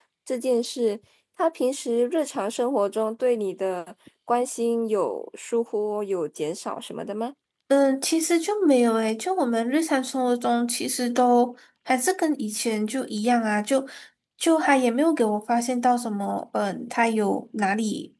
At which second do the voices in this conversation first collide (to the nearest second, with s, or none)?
none